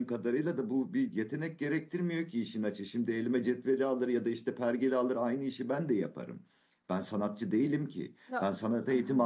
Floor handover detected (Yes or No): No